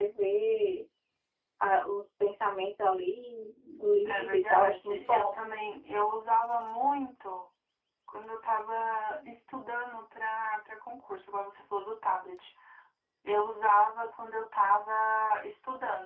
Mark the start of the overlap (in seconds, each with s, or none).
4.0 s